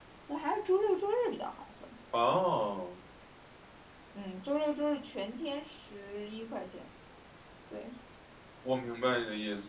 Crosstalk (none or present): none